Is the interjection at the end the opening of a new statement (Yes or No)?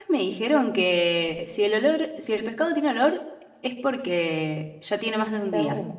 Yes